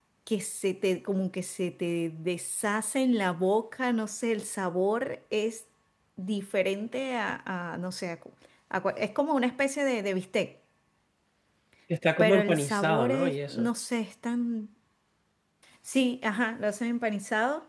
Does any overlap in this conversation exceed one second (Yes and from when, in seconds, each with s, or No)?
Yes, from 12.2 s